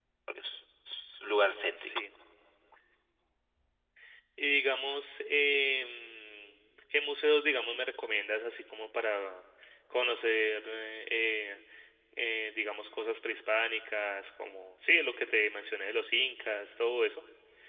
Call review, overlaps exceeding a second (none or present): none